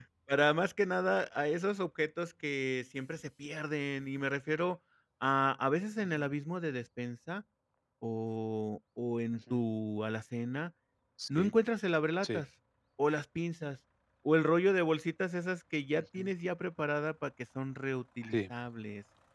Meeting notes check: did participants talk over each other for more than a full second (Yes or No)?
No